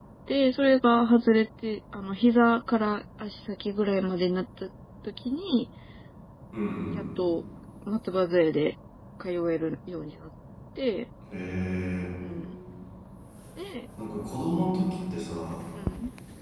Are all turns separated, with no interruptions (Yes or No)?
Yes